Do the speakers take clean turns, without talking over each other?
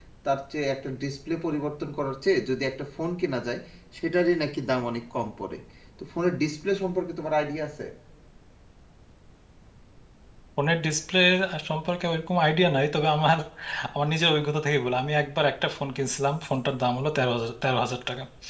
Yes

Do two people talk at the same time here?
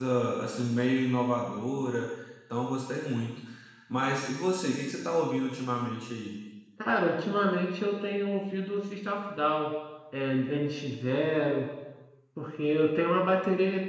No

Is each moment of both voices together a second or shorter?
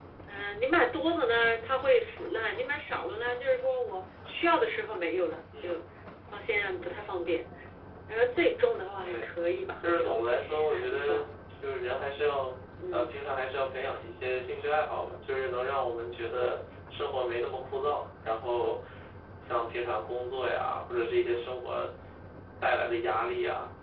No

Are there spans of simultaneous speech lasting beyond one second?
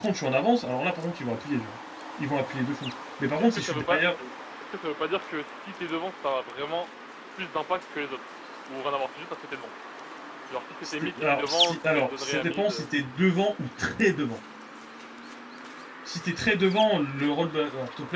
Yes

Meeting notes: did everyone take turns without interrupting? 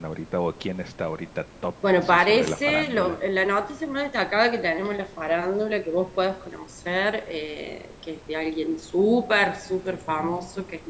No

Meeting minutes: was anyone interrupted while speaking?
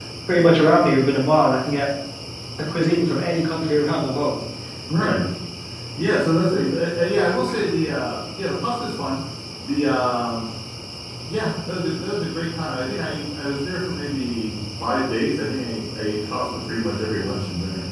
No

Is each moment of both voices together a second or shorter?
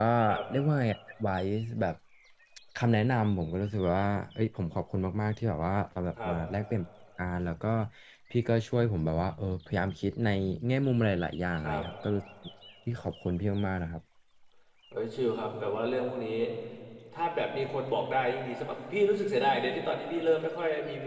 Yes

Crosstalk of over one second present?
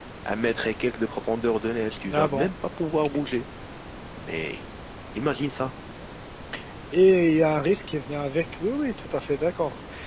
No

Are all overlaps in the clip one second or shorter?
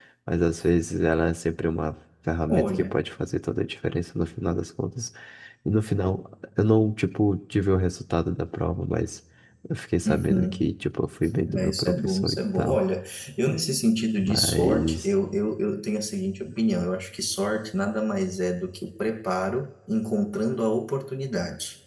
No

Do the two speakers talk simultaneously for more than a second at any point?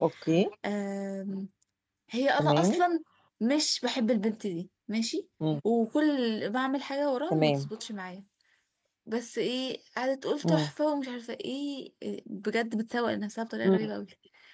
No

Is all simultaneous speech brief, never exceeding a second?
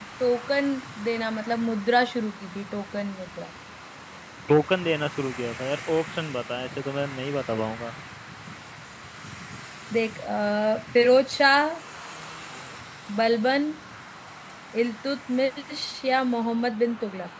Yes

